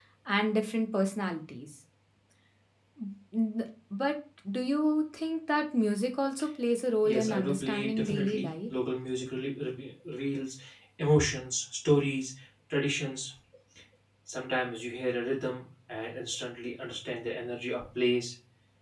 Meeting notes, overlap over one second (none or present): present